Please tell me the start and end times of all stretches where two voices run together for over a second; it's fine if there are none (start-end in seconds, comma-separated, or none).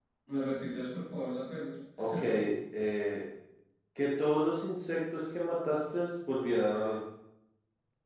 none